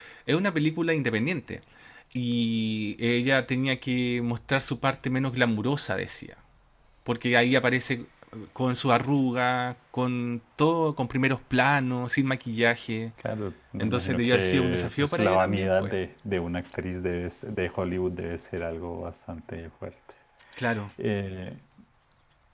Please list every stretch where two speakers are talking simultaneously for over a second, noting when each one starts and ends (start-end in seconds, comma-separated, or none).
13.8-15.9